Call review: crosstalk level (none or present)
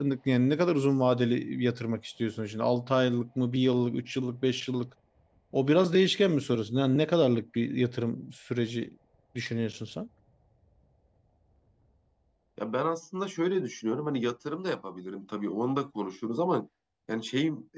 none